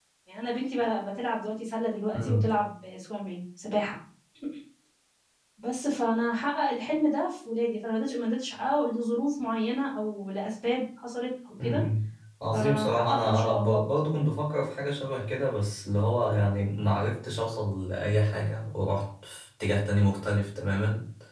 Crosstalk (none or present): present